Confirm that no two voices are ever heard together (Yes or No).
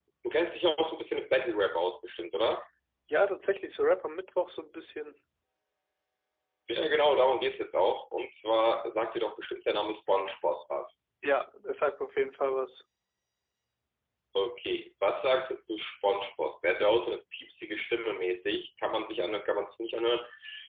Yes